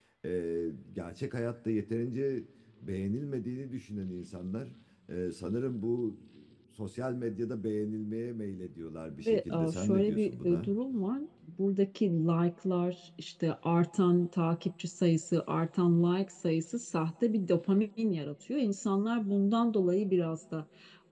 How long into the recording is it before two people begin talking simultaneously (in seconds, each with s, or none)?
9.2 s